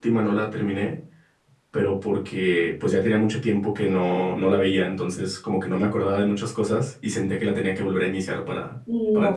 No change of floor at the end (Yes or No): No